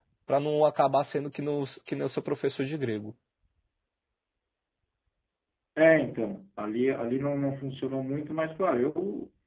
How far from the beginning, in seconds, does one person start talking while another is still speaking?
none

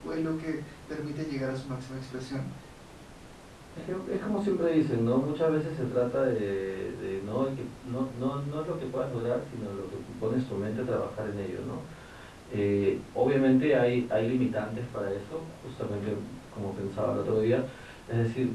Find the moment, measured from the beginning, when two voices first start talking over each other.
none

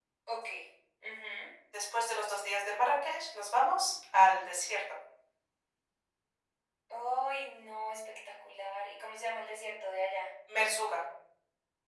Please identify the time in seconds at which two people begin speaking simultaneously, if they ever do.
none

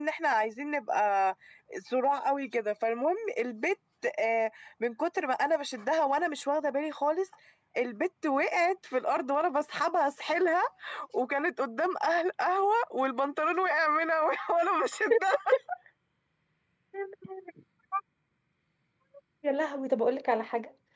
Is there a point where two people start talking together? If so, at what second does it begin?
none

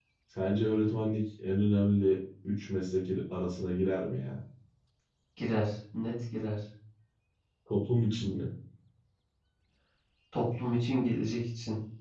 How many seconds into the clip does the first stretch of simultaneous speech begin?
none

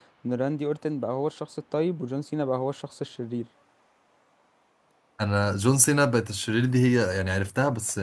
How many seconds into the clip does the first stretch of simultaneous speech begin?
none

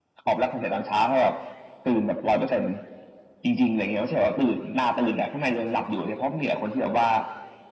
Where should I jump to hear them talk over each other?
none

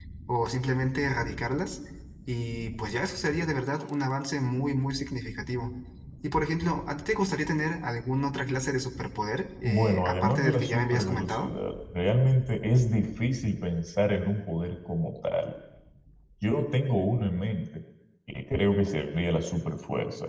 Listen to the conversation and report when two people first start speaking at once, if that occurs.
9.6 s

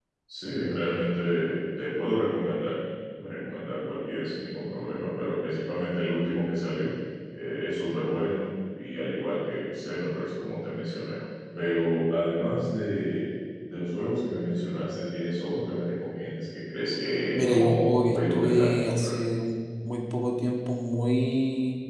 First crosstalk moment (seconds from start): 17.3 s

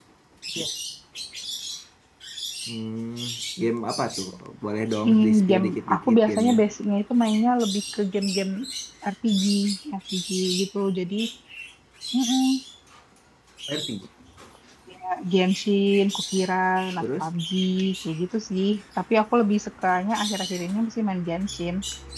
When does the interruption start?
5.0 s

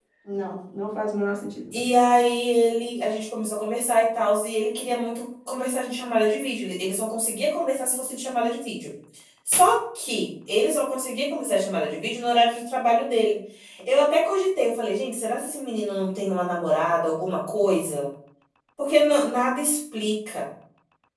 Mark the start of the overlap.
none

